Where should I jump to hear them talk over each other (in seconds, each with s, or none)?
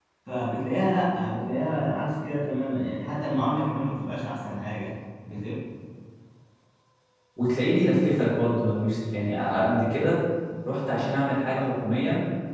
none